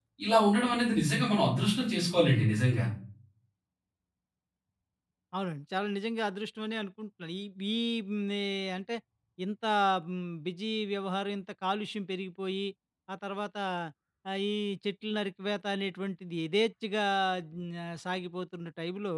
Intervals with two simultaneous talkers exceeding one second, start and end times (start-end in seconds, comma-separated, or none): none